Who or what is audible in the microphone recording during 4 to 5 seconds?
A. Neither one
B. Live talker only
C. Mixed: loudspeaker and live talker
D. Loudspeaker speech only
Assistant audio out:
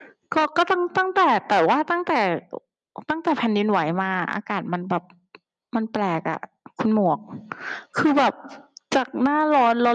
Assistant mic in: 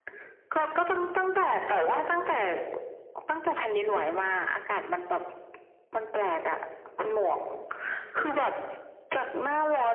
D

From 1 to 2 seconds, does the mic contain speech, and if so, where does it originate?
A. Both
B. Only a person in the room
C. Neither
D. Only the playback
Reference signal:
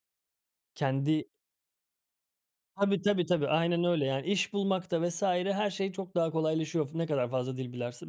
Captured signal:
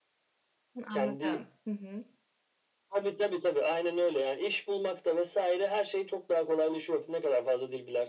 A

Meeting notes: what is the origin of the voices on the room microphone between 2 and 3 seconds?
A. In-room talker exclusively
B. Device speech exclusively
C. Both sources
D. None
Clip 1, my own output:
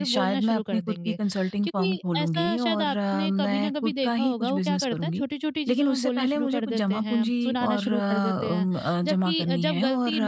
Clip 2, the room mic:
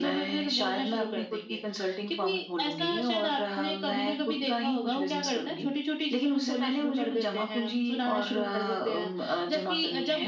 B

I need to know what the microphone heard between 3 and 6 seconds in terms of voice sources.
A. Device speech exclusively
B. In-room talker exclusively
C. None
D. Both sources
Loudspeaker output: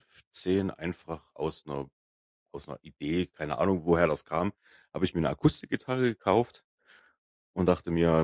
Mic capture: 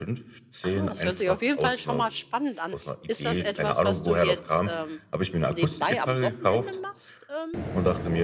D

